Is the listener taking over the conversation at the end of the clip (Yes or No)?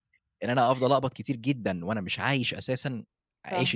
Yes